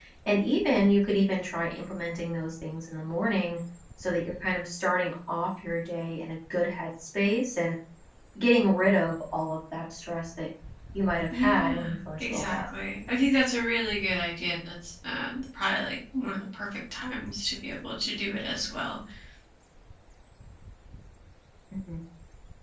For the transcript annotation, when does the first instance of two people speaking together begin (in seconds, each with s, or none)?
11.3 s